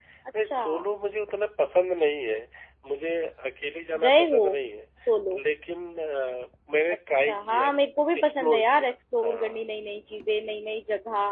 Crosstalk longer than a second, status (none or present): present